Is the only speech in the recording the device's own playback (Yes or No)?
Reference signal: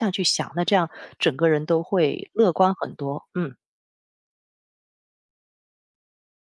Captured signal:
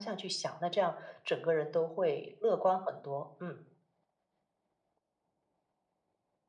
Yes